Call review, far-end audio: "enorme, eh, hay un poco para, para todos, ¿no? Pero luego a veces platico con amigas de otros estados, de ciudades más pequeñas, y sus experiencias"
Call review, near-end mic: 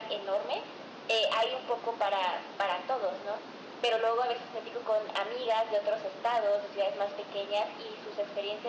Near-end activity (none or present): none